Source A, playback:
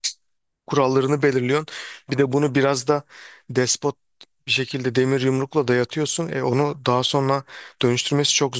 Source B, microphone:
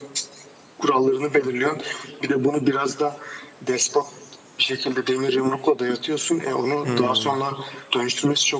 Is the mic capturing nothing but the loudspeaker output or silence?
No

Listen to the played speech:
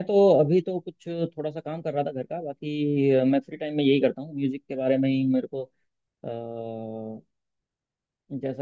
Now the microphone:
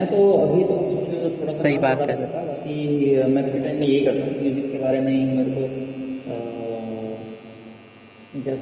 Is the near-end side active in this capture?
Yes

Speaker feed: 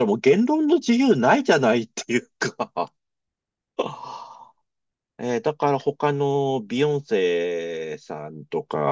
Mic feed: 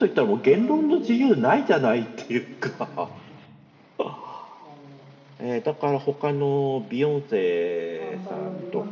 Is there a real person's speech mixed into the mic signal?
Yes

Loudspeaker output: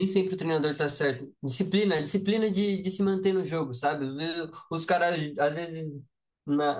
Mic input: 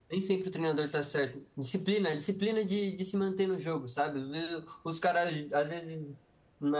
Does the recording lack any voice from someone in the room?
Yes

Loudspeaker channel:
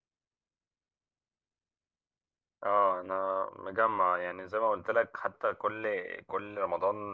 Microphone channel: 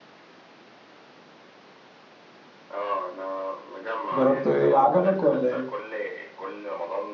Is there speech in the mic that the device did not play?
Yes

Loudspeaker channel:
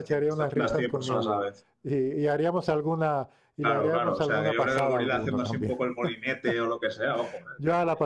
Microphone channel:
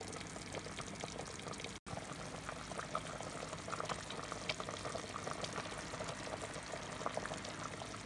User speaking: No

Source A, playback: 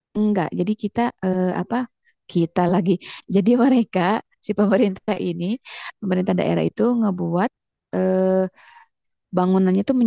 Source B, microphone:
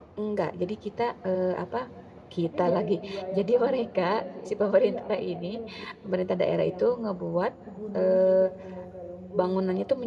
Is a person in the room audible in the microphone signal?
Yes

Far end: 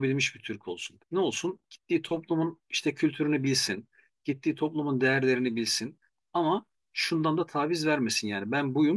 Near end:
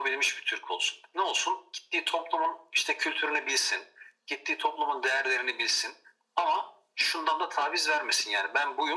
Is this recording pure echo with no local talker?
Yes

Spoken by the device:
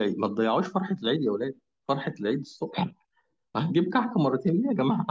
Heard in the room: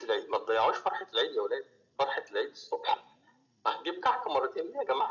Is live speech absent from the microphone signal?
Yes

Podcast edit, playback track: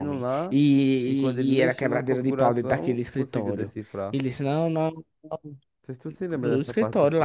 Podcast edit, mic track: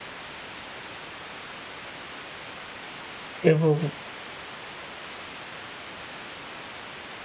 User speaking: Yes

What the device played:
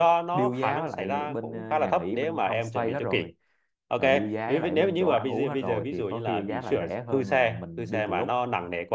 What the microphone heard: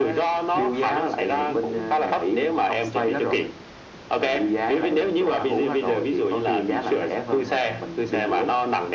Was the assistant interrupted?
No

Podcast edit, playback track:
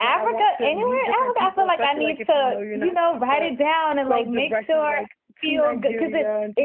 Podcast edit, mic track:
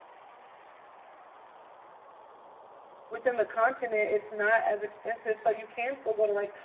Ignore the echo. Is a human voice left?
Yes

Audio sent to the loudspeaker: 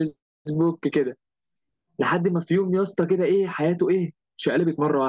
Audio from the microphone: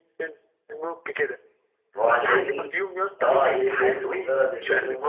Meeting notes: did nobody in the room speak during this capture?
No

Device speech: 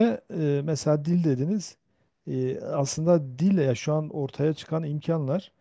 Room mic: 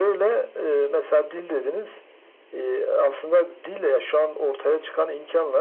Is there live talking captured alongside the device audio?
No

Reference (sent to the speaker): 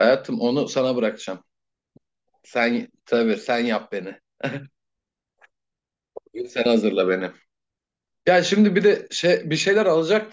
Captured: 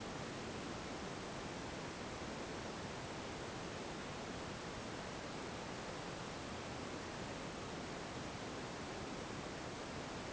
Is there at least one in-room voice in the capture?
No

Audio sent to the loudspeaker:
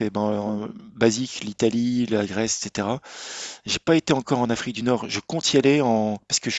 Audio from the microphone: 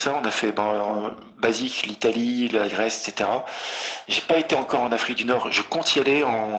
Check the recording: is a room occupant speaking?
No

